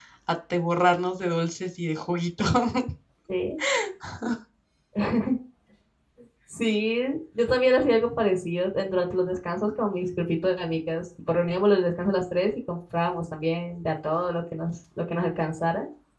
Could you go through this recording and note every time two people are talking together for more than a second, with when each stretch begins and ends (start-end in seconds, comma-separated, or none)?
none